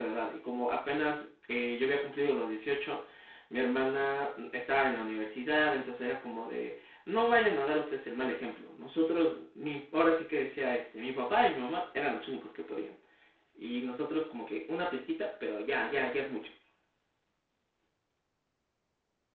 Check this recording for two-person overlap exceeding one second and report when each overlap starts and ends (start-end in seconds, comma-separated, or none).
none